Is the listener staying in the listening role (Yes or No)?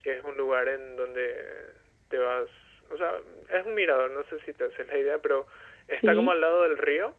Yes